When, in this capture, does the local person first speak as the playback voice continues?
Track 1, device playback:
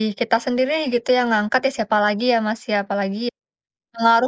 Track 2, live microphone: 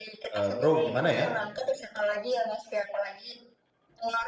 0.3 s

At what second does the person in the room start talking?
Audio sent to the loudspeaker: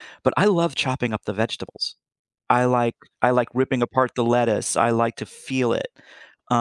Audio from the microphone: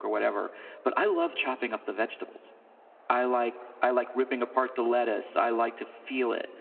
none

